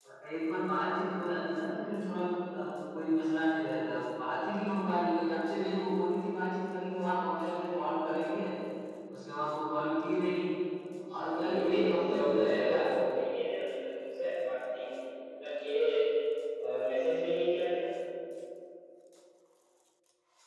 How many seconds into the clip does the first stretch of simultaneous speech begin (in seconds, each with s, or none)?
11.2 s